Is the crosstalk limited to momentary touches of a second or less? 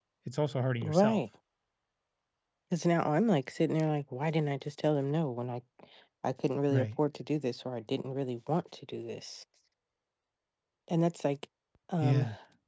Yes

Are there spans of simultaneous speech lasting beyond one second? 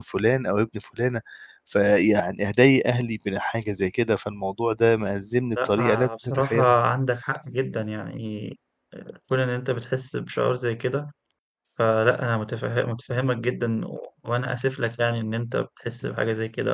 Yes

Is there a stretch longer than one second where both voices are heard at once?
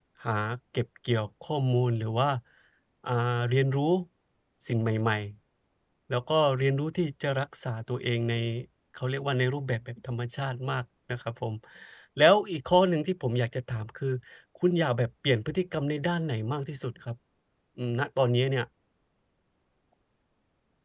No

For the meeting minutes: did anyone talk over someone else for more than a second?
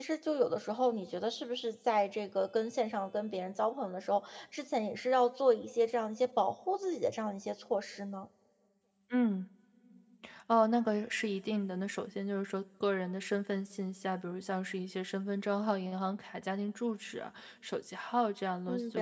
No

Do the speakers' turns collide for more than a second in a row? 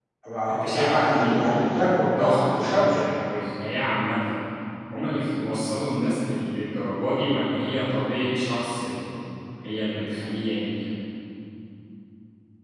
Yes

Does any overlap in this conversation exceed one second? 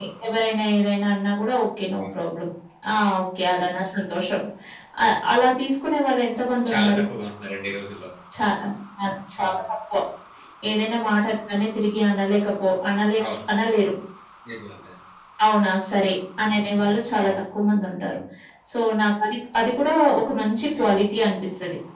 No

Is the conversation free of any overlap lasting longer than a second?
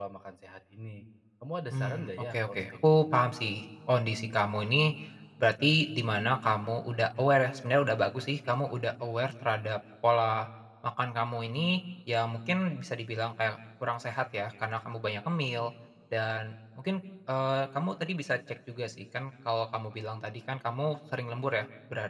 No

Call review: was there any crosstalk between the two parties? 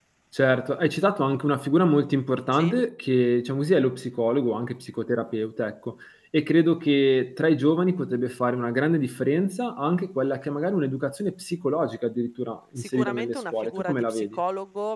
Yes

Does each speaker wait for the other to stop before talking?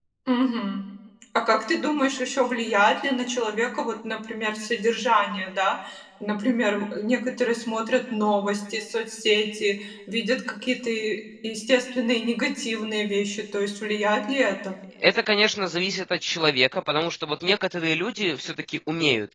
Yes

